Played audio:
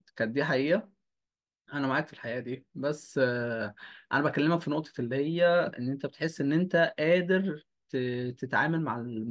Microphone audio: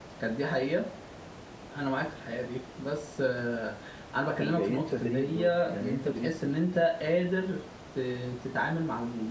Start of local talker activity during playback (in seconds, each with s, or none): 4.4 s